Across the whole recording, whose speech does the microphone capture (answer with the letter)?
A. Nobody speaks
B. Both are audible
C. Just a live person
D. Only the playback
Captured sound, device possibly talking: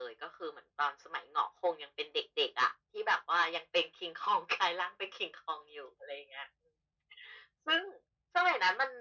D